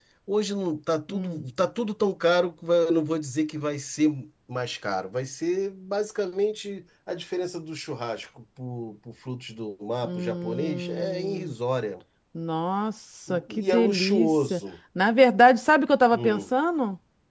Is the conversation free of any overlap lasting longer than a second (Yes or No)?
No